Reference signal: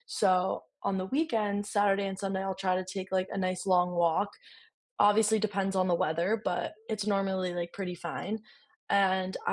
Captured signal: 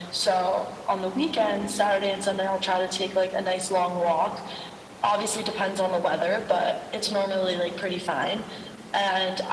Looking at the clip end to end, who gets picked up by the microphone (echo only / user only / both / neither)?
echo only